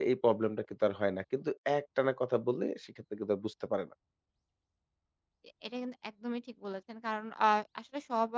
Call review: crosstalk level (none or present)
none